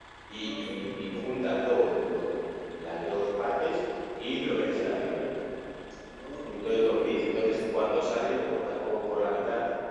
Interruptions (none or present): present